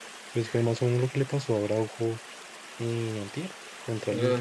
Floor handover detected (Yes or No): Yes